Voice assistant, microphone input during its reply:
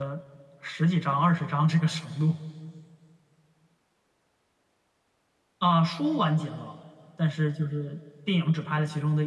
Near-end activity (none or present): present